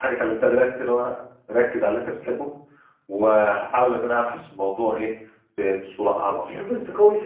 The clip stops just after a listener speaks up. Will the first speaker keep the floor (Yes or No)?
No